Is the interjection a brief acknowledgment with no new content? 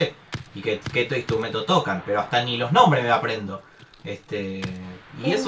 Yes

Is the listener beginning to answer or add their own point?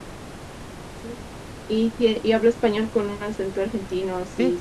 Yes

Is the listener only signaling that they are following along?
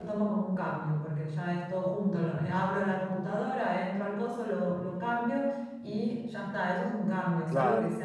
Yes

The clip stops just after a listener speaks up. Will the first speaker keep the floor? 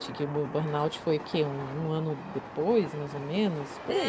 No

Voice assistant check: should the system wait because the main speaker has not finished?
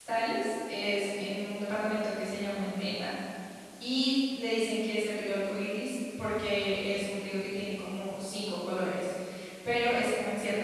Yes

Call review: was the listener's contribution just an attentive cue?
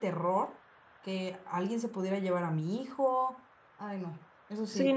No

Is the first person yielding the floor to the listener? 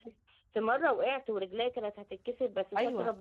Yes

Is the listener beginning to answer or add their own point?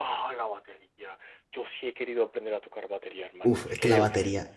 Yes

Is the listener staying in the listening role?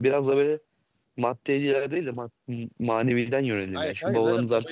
No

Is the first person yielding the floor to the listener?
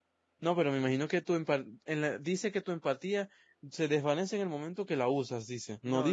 Yes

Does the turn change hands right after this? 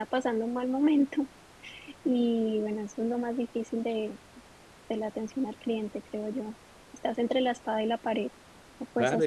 Yes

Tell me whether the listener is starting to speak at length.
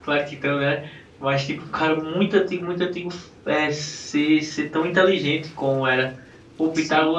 No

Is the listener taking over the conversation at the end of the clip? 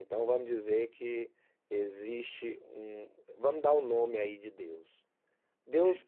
No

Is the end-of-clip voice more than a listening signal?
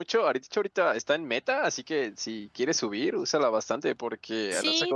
Yes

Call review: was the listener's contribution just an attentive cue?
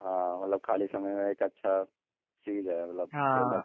No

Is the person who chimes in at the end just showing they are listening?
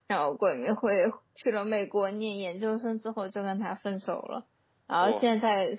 Yes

